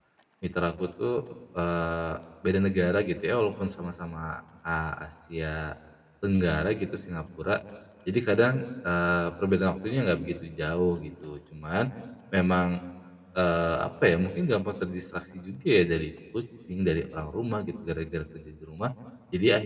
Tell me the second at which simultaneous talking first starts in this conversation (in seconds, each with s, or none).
none